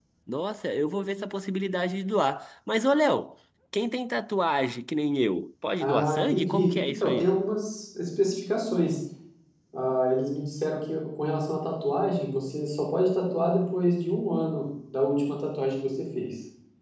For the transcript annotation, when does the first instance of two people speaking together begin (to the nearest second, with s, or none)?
6 s